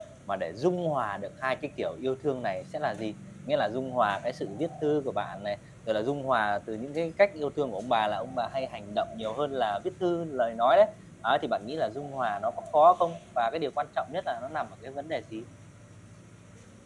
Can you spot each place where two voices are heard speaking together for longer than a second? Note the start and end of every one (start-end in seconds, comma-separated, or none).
none